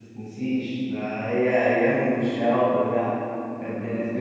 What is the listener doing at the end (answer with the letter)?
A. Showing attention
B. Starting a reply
A